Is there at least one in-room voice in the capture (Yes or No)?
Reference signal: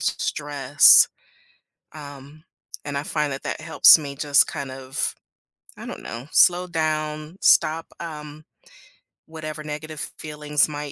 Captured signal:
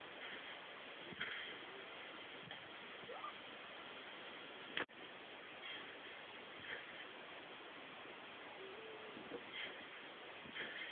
No